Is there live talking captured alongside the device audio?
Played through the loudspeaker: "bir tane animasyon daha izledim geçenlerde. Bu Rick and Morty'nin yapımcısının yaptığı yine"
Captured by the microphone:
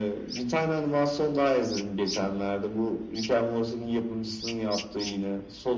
No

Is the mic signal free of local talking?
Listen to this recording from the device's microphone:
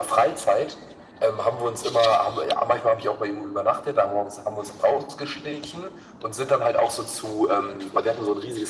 Yes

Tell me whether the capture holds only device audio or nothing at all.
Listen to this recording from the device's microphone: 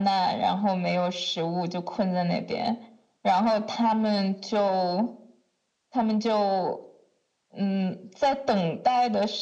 Yes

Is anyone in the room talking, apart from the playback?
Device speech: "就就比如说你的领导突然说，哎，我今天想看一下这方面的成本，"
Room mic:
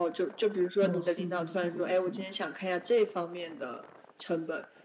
Yes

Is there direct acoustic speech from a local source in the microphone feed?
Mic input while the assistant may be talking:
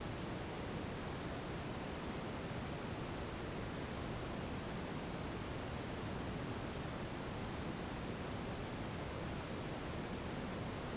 No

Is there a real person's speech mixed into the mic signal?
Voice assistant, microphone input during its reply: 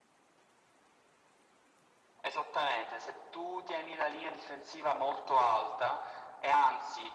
No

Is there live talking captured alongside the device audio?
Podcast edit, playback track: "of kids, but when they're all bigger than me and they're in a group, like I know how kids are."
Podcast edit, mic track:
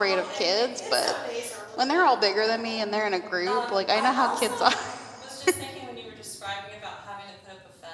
Yes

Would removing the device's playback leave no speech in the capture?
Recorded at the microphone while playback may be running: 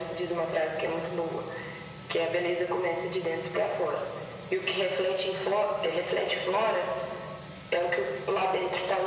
Yes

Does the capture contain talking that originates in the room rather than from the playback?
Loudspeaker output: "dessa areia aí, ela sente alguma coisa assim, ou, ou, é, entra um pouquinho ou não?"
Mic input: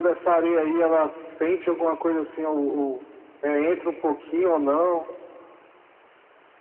No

